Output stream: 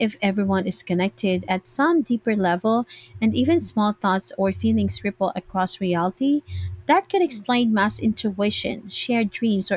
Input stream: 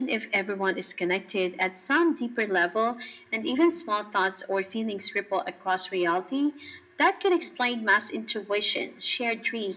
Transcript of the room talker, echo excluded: none

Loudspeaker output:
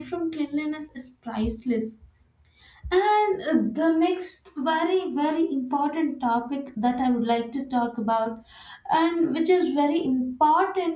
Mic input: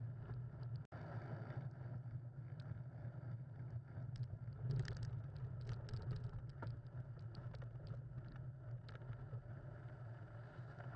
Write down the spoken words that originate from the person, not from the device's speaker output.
none

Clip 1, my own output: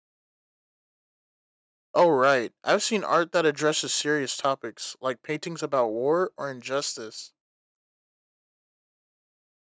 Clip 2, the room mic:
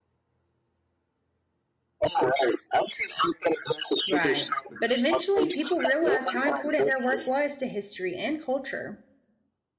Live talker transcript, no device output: Right. But eventually, people realized how important their work was to history and culture.

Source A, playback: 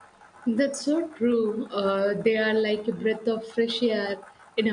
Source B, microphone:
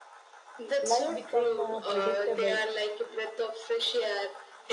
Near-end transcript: life become uh, predictable

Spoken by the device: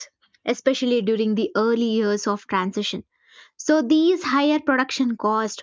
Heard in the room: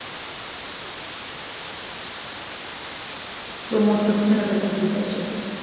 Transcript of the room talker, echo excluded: promotes sustainable agriculture,

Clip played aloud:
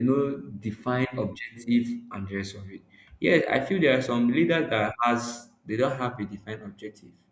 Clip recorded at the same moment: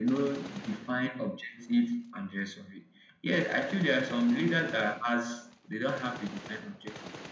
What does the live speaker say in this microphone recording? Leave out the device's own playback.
none

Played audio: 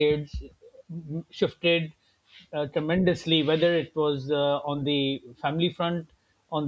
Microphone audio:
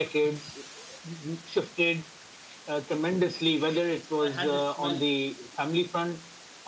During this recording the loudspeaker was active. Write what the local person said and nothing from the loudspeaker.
uh, I had this smell.

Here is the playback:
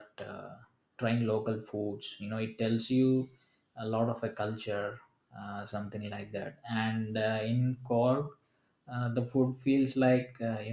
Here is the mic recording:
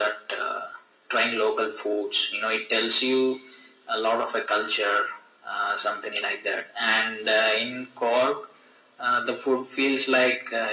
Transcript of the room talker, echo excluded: none

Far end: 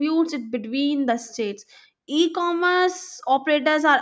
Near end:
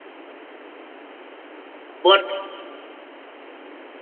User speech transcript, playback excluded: but

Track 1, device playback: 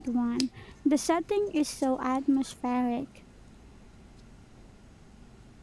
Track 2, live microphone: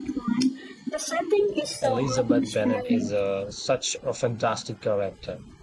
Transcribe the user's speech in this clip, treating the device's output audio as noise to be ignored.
Elizabeth Bennet is a, such a fantastic character.

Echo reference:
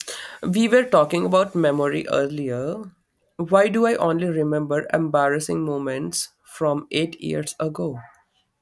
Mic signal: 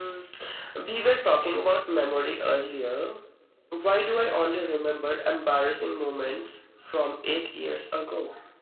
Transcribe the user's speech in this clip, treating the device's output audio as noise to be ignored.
none

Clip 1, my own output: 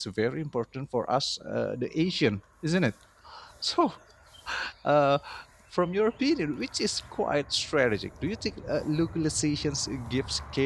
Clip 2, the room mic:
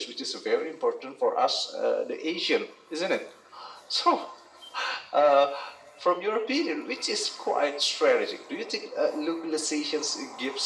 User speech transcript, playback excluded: none

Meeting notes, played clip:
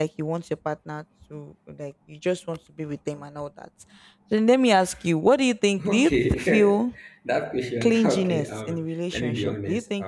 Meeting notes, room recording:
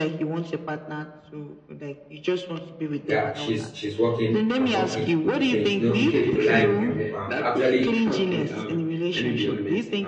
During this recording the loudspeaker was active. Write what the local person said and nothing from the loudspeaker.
yeah she's she's working i'm working we can you know we can collide we can um, actually

